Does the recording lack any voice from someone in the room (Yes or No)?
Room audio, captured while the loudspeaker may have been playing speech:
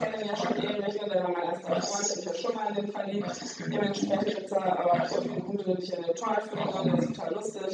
Yes